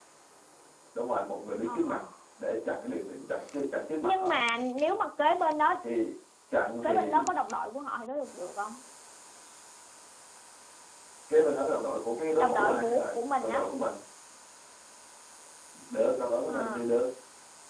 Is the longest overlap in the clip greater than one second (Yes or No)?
Yes